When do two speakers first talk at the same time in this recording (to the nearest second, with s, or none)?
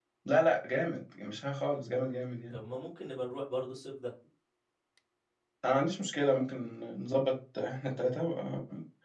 none